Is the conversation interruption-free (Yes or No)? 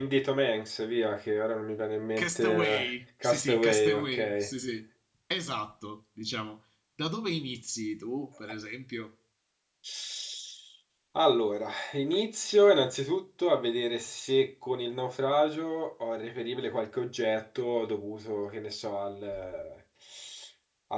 No